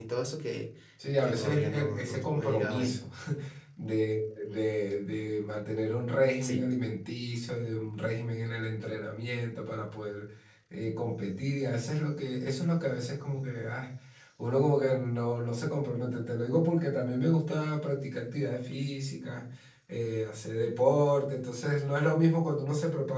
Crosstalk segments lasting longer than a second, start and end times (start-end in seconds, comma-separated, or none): 1.2-3.0